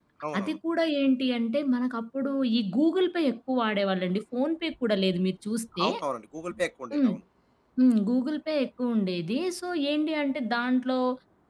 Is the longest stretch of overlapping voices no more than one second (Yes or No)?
Yes